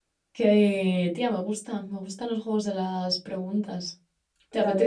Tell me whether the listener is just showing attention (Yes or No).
No